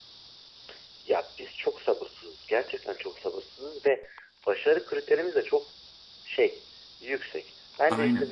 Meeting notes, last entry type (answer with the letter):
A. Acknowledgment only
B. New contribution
A